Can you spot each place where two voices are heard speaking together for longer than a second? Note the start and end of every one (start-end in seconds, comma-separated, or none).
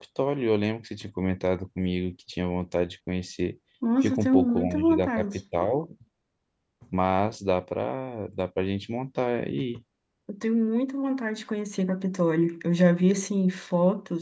4.0-5.4